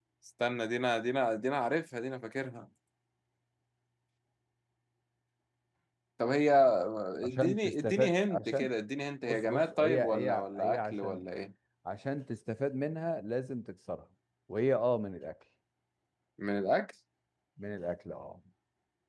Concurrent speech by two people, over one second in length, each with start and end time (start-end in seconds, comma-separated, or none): 7.3-8.7, 9.3-11.2